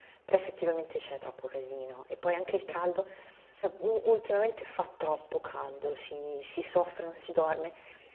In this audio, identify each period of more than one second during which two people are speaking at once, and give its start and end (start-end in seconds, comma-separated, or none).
none